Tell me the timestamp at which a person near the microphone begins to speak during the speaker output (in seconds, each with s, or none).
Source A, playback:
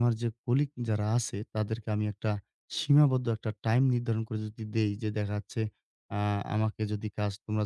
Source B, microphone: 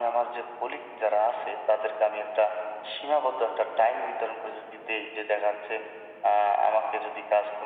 none